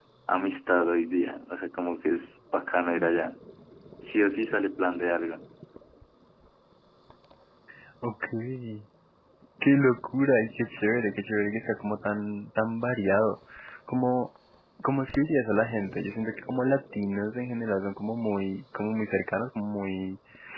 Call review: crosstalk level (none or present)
none